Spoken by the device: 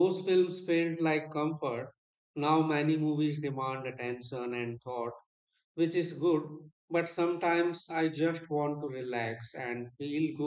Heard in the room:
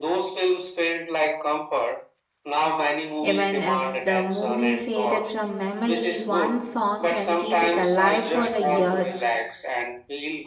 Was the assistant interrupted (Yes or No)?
Yes